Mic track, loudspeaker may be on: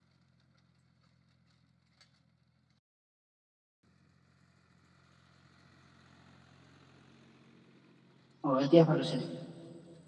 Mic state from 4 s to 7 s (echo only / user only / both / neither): neither